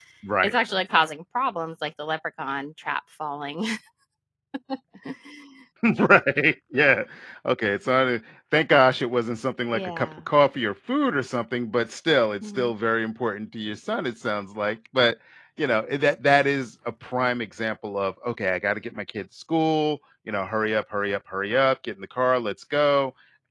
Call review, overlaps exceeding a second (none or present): none